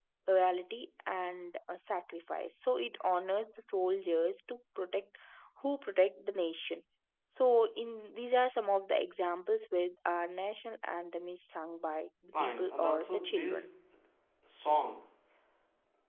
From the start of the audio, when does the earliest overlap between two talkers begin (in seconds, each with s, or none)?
12.3 s